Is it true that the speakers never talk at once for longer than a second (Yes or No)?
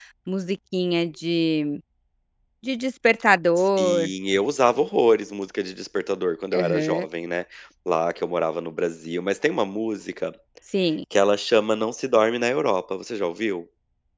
Yes